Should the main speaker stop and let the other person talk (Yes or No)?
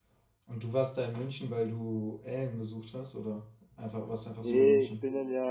Yes